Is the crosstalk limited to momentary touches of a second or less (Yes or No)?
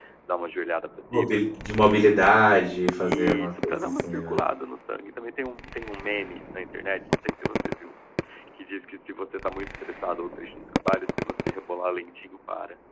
No